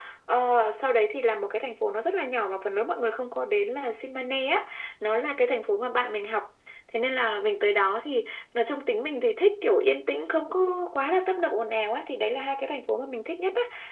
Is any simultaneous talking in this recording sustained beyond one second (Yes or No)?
No